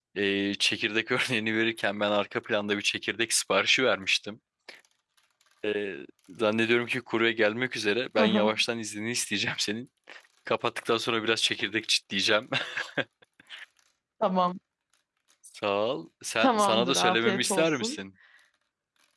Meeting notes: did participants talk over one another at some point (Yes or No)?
Yes